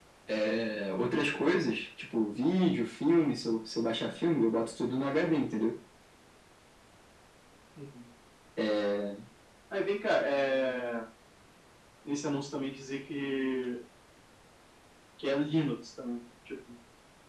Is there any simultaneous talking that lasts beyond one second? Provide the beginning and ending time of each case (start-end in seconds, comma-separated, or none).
none